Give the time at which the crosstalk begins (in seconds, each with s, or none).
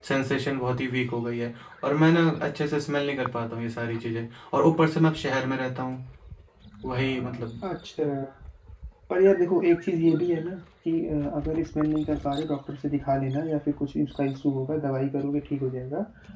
none